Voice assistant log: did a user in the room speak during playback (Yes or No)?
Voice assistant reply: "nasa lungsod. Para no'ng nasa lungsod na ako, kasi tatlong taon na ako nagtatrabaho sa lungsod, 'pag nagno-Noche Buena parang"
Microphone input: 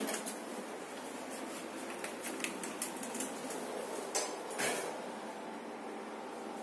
No